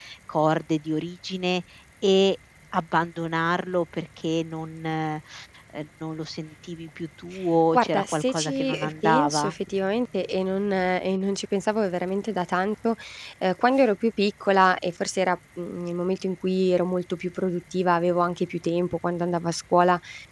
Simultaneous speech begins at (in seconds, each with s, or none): 7.7 s